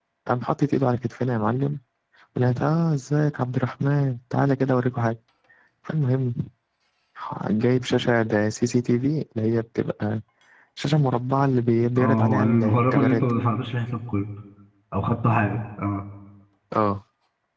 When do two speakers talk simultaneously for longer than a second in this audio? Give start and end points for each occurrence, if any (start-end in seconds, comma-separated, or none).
12.0-13.4